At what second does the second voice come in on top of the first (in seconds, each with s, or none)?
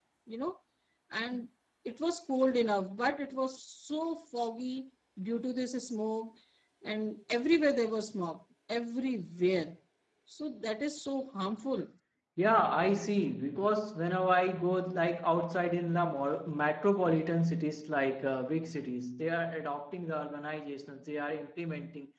none